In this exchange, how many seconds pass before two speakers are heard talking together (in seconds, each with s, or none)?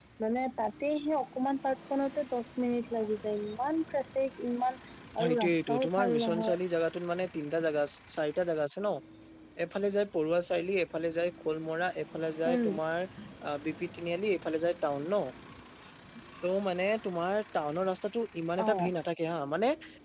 5.2 s